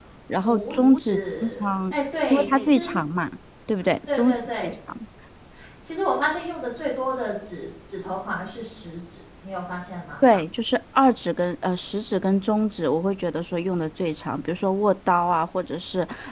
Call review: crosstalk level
present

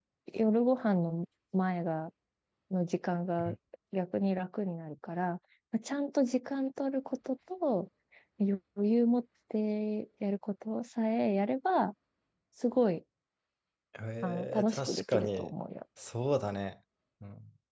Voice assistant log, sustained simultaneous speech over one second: present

